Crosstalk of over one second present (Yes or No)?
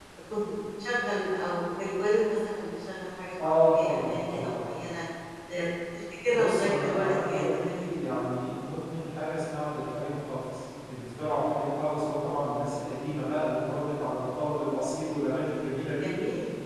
Yes